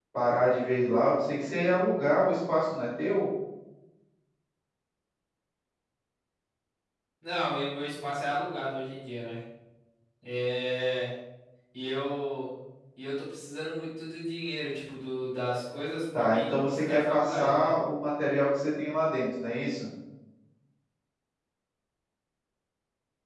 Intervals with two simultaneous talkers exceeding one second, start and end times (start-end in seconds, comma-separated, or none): 16.1-17.7